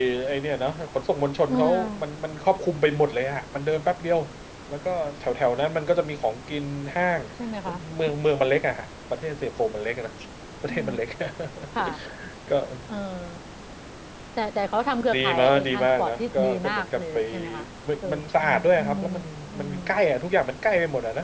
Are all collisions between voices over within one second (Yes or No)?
No